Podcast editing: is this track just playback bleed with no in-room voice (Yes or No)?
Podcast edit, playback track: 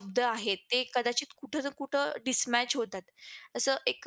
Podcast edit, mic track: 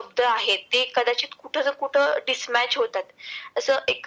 Yes